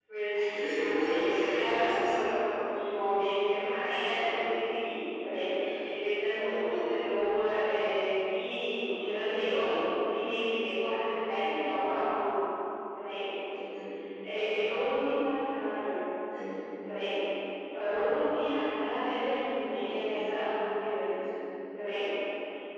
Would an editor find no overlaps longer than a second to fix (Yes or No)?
No